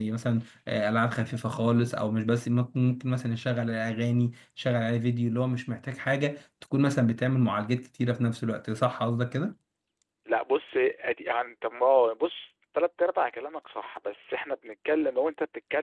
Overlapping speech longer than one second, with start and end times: none

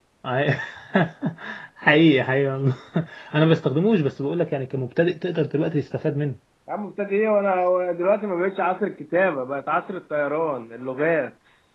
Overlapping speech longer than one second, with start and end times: none

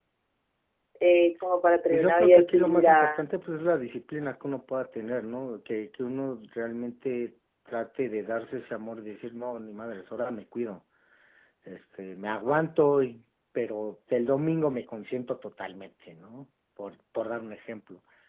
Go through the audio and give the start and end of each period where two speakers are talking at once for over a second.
1.9-3.3

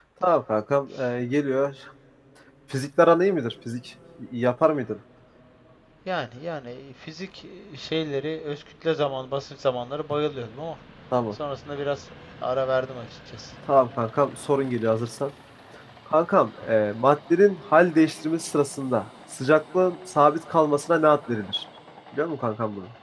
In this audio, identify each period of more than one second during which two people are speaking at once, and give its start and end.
none

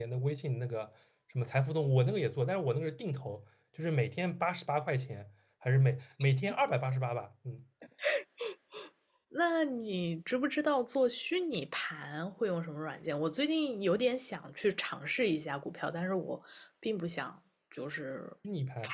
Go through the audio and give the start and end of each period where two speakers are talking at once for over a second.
none

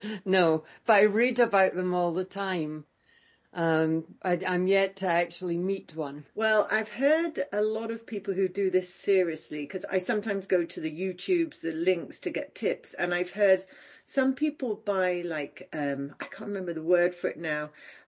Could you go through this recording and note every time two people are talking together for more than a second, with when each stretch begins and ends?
none

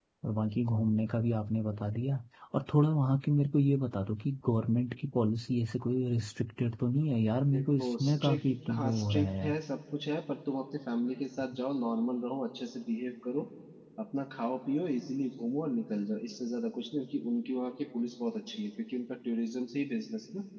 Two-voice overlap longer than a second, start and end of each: 7.5-9.5

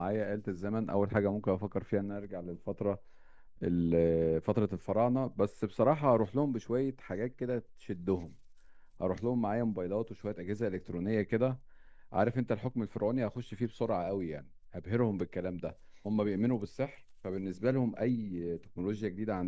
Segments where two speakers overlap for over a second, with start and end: none

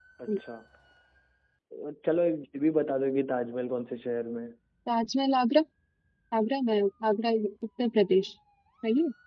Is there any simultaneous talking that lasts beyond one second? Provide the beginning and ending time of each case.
none

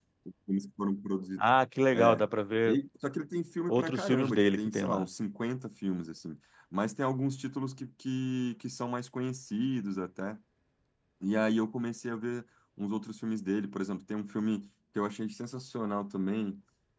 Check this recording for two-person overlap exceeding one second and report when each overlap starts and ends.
3.7-5.1

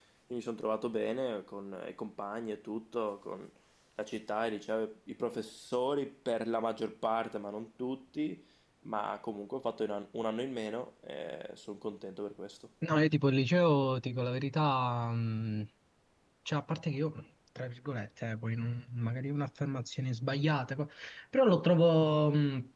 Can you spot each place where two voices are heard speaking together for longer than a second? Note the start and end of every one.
none

